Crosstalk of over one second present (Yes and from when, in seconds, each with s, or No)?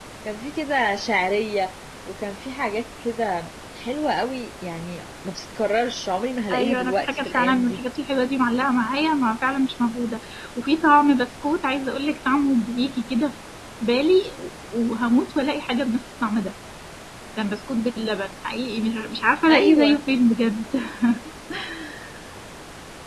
Yes, from 6.5 s